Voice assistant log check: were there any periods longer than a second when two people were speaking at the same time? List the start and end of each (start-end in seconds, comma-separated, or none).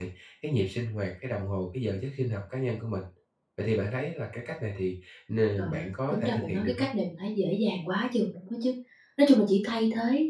5.6-6.9